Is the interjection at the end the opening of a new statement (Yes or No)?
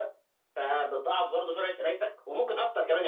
No